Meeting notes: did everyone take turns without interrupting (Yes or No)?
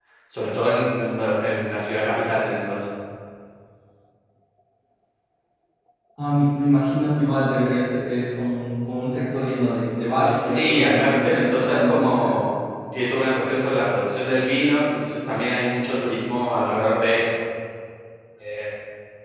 No